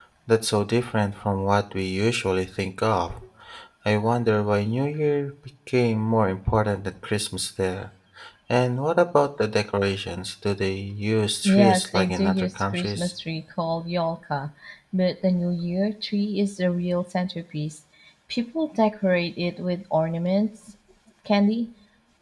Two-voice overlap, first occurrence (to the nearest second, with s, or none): 11 s